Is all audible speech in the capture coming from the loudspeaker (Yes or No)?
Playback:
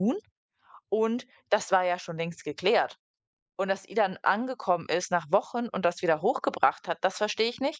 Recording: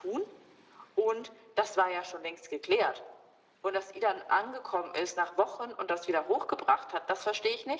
Yes